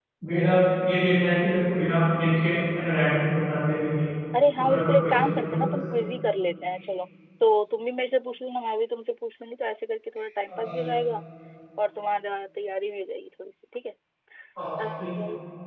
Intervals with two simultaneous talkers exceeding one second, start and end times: 4.6-5.8

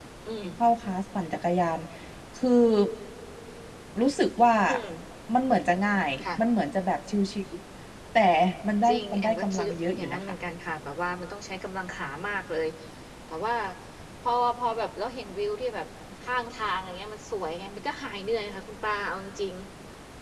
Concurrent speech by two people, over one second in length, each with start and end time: 8.9-10.3

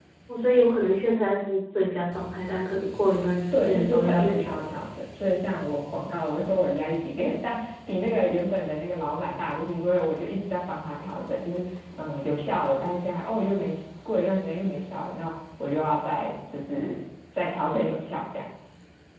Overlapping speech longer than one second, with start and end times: 3.5-4.7

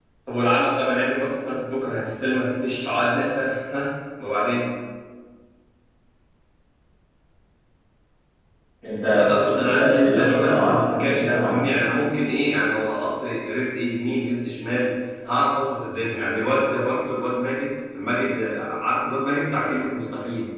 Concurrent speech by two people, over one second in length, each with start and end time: 9.1-11.7

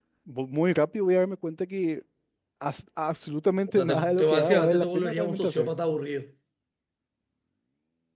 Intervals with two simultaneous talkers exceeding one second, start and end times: 3.7-5.7

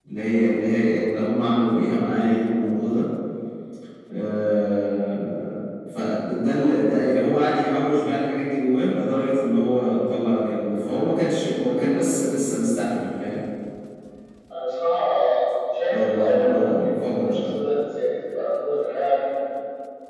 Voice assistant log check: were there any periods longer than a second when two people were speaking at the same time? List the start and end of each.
15.9-17.4

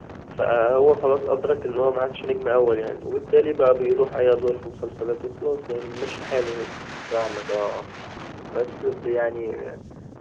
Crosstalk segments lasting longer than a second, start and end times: none

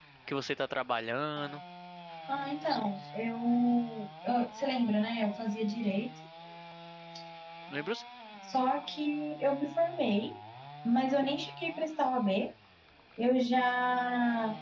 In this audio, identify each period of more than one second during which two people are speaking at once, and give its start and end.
none

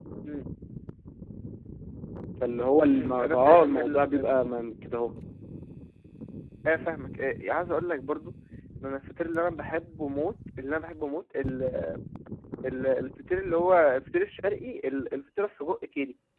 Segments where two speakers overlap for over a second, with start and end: 2.9-4.3

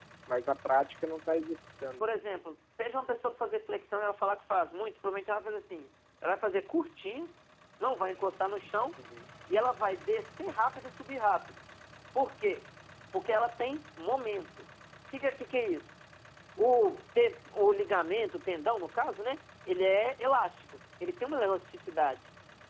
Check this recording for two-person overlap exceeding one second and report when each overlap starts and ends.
none

